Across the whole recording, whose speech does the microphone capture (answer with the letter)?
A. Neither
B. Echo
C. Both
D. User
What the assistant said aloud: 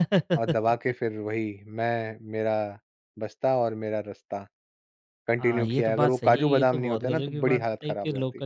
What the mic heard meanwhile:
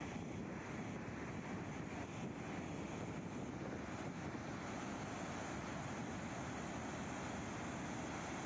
A